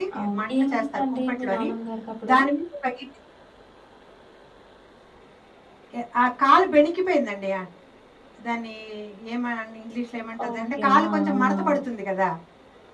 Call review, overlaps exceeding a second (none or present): present